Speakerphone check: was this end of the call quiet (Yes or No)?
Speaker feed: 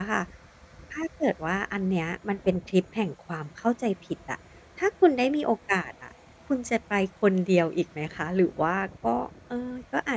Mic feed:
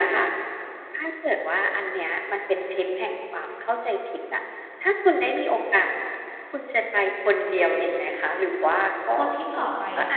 No